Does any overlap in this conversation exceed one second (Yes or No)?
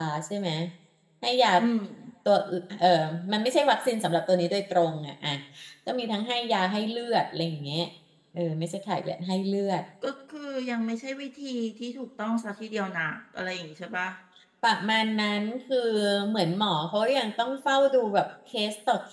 No